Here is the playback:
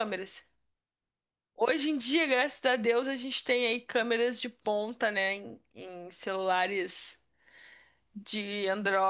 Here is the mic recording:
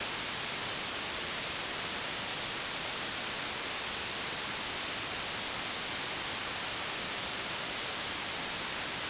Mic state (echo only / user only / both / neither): neither